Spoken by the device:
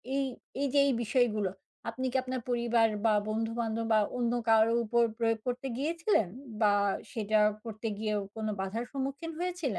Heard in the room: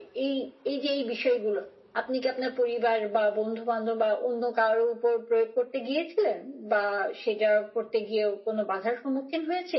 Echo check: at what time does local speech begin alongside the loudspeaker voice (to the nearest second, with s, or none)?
none